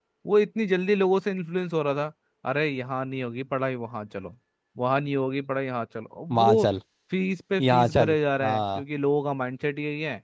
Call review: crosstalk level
present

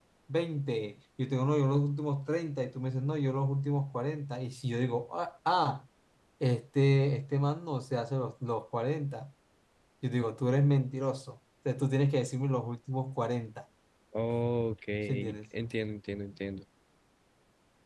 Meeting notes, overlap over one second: none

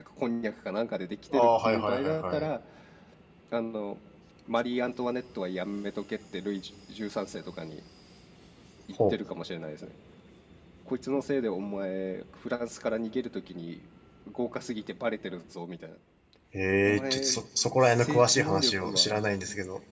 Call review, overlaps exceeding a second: present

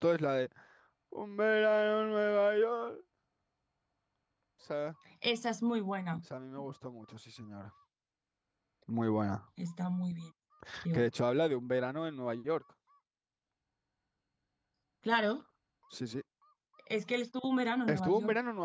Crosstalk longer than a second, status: none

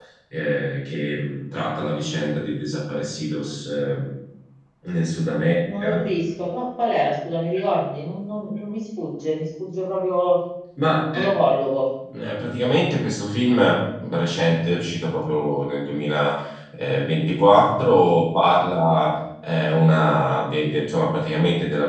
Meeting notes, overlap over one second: none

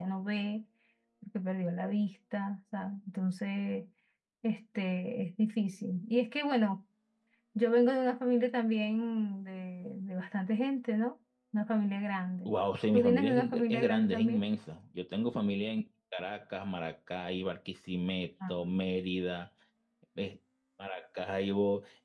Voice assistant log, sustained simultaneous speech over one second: present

